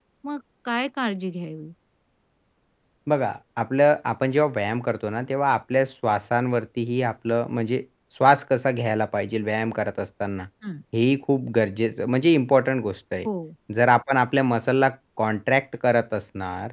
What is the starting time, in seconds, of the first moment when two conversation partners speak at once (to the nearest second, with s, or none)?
none